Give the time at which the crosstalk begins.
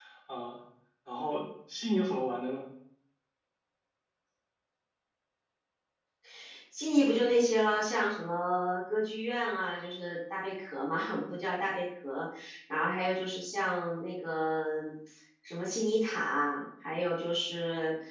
none

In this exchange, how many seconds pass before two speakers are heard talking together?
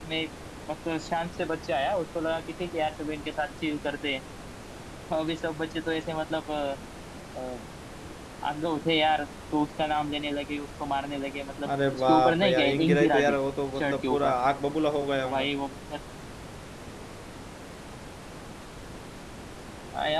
11.9 s

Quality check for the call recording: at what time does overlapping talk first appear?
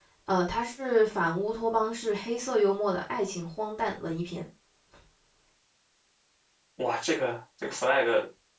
none

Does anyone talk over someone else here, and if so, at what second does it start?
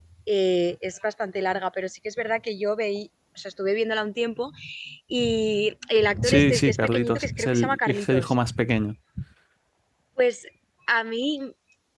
6.2 s

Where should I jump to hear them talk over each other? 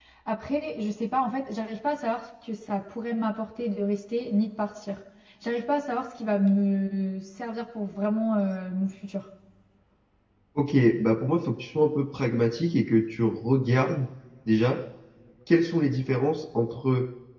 none

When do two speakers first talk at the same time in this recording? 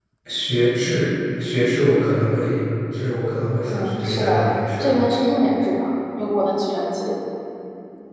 3.6 s

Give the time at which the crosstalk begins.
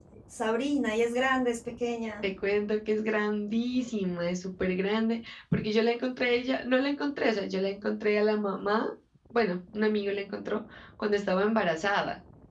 none

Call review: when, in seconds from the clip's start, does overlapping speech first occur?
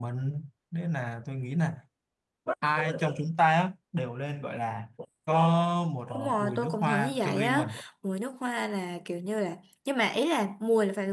6.4 s

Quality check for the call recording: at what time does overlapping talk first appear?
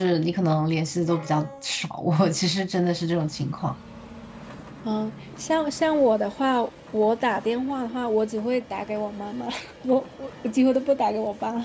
none

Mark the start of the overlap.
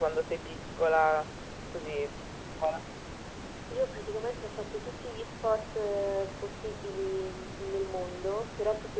none

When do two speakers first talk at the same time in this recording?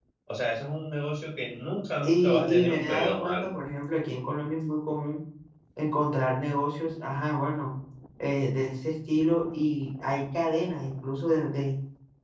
2.0 s

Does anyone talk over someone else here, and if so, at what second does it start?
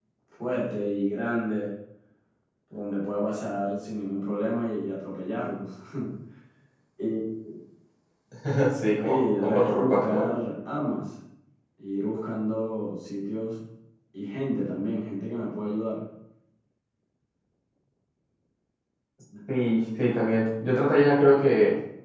9.0 s

